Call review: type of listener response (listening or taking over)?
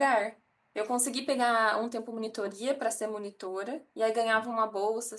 listening